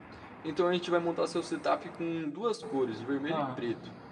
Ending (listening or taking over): taking over